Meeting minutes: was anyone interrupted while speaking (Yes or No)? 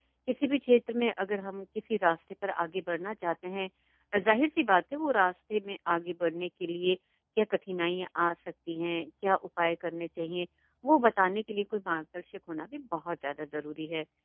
No